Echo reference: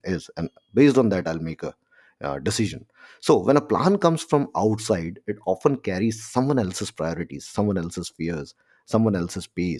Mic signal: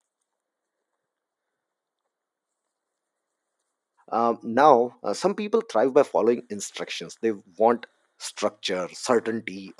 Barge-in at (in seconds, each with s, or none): 4.1 s